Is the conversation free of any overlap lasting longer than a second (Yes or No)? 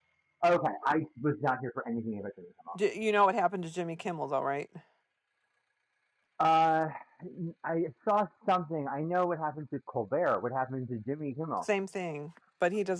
Yes